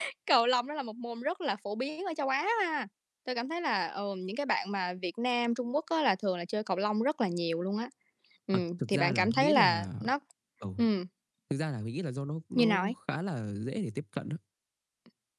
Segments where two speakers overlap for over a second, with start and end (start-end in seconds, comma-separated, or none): 8.5-9.9